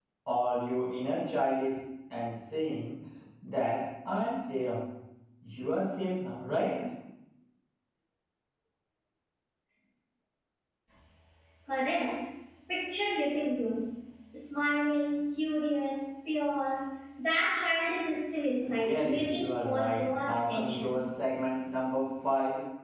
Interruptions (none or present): present